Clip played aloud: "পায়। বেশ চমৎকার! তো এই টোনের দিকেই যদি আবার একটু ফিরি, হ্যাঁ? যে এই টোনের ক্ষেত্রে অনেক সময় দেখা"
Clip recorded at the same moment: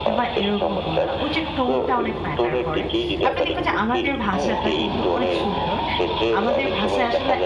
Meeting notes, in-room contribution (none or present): present